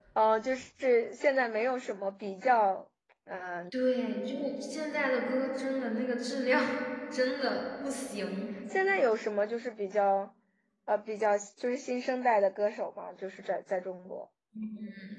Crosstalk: none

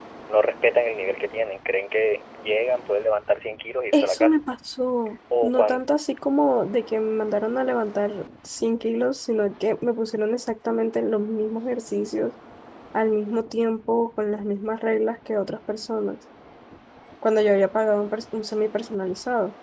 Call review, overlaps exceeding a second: none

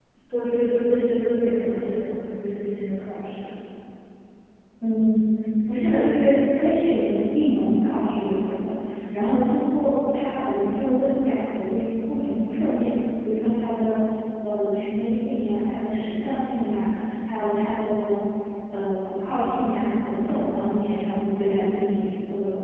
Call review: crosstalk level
none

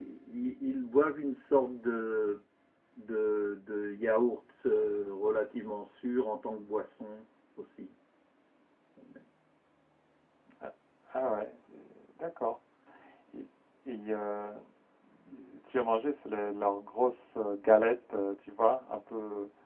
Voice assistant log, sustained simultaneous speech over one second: none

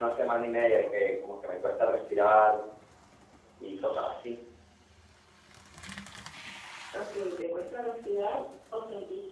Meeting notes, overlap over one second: none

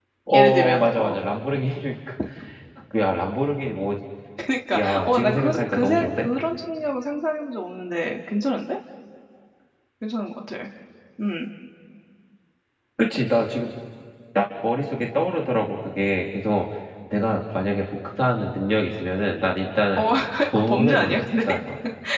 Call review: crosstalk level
present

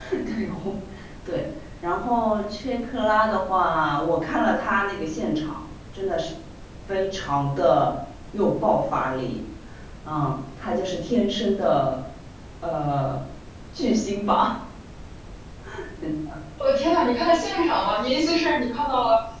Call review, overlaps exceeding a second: none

